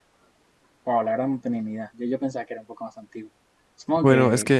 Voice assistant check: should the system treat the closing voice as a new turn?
Yes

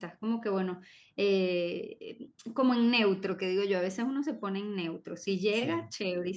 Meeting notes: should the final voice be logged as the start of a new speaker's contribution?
No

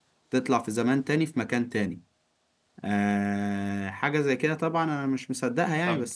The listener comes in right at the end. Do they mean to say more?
Yes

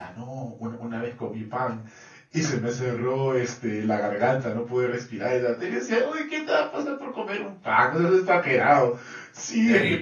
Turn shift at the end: No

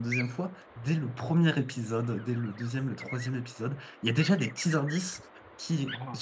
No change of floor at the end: Yes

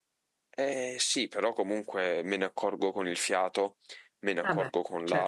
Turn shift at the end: No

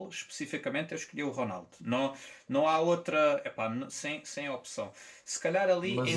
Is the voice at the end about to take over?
No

